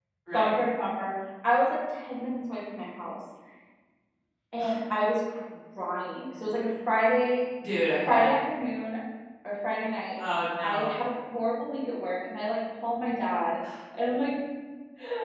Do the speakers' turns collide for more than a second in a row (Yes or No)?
No